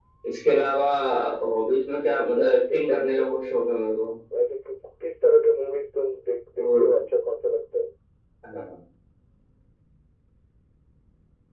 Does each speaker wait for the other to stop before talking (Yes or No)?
No